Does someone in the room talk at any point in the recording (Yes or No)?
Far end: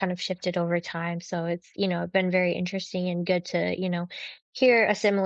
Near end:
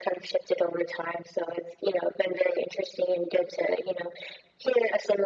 No